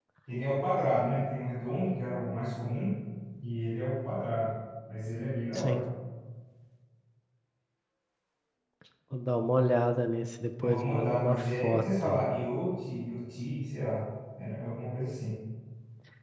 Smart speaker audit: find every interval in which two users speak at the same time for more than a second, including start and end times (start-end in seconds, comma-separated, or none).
10.6-12.2